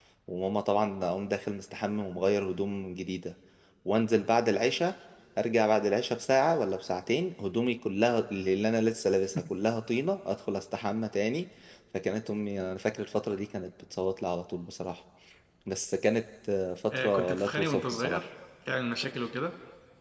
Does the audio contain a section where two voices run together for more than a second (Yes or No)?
Yes